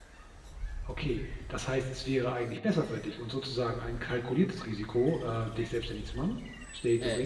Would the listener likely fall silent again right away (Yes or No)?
No